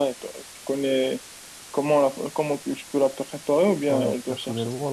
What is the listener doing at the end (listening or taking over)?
taking over